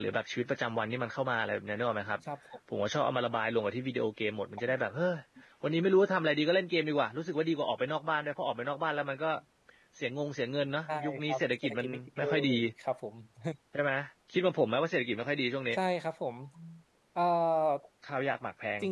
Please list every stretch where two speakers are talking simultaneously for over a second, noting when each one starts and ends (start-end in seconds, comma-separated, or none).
10.9-12.5